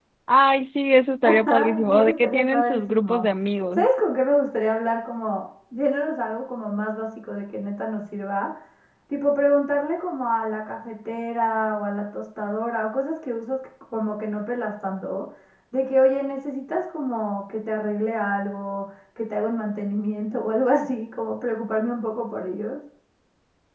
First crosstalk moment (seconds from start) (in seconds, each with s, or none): 1.2 s